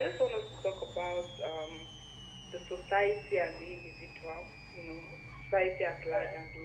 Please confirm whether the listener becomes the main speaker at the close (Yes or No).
No